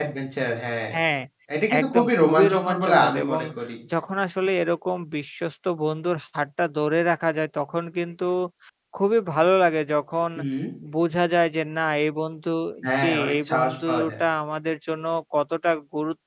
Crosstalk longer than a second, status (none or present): present